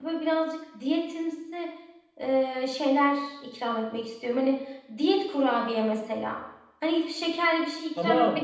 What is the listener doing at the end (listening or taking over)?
taking over